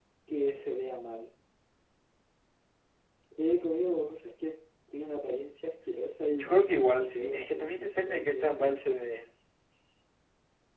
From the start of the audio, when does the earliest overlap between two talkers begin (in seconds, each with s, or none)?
6.4 s